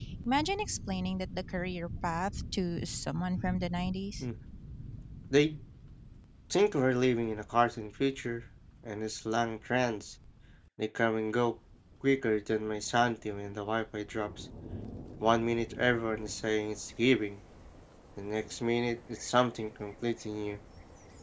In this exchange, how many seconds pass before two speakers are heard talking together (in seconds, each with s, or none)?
none